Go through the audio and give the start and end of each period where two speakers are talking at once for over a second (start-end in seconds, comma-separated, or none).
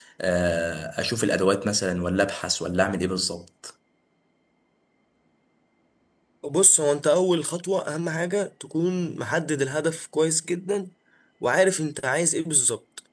none